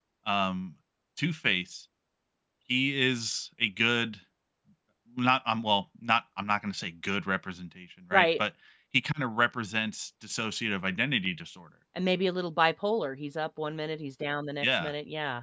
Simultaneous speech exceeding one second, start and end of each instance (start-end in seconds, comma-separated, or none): none